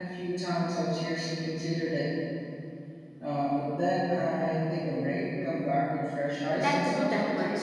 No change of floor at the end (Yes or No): No